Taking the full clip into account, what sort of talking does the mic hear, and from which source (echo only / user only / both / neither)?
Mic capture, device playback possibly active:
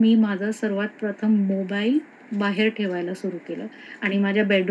echo only